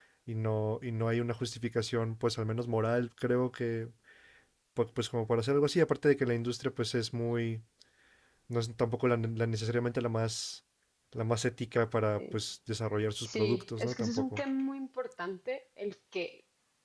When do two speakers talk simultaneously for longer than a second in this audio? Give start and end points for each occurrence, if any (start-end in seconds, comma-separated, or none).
13.2-14.4